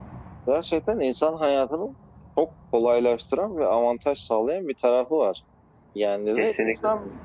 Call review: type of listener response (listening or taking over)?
listening